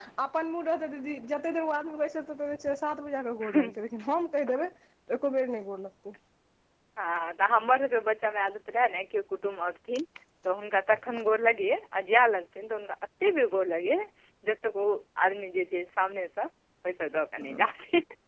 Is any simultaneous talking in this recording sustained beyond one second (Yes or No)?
No